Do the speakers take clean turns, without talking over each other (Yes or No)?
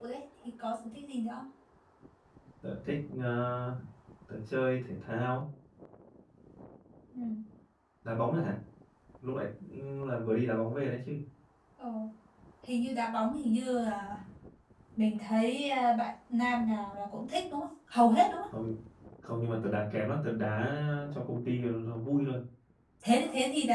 Yes